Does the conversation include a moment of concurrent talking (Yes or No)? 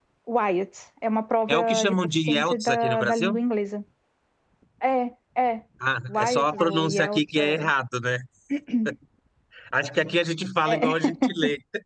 Yes